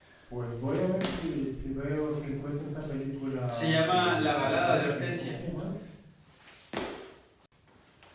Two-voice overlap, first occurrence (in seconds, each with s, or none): 3.5 s